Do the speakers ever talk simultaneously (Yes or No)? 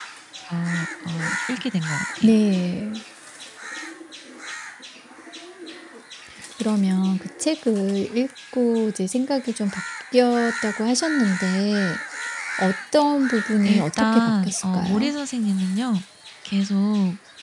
Yes